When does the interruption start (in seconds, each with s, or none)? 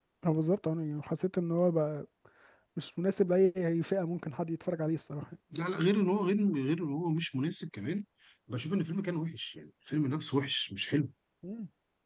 none